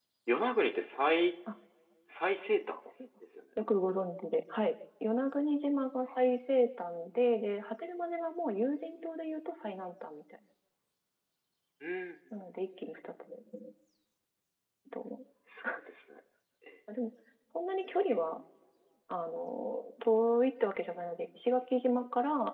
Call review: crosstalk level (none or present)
none